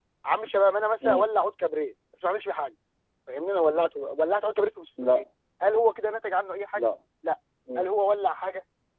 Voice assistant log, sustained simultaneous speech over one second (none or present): none